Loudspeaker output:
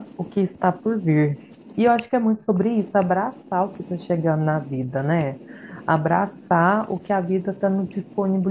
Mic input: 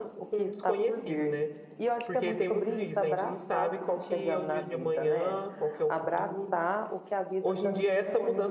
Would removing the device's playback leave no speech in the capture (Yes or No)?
No